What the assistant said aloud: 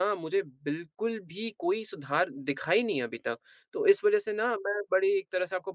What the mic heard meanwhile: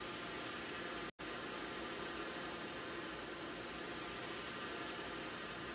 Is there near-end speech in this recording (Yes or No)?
No